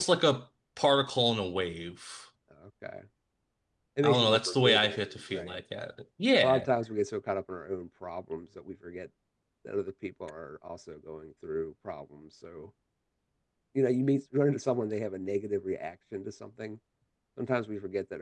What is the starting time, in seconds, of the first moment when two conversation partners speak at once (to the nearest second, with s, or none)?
4 s